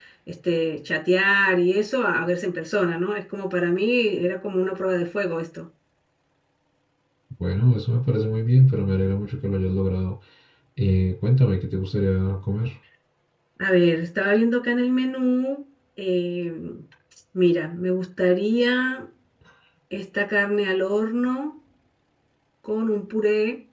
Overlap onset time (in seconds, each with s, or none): none